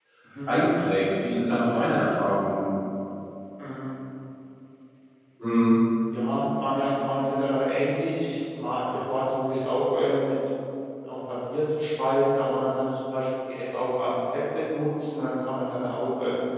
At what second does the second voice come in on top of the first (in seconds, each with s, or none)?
none